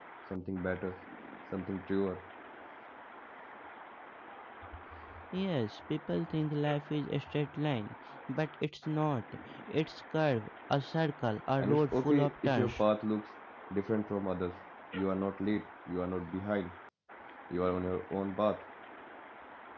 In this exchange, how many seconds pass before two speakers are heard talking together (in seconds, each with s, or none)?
11.6 s